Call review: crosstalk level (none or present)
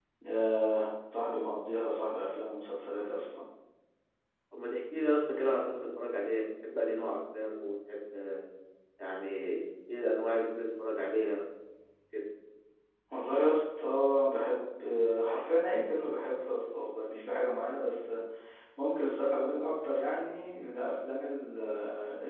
none